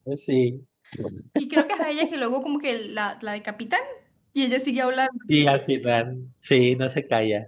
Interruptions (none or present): none